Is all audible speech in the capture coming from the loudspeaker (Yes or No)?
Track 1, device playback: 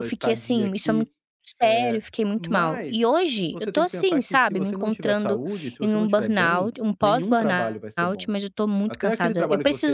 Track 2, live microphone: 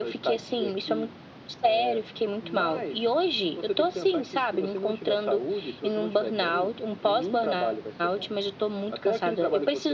Yes